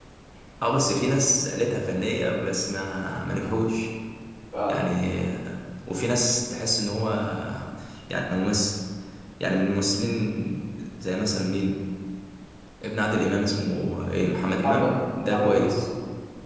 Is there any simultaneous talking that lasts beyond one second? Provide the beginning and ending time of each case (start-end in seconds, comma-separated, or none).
14.6-15.8